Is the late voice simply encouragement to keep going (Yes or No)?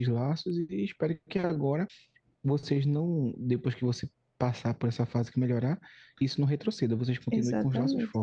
No